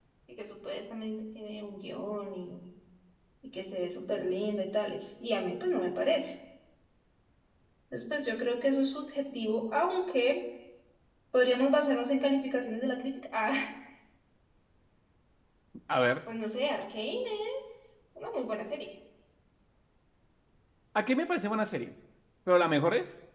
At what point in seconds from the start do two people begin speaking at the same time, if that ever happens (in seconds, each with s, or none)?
none